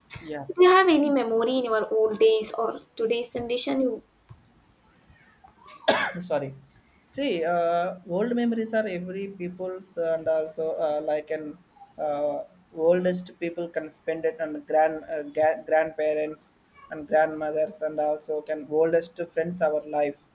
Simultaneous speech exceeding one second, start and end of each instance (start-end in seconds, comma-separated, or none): none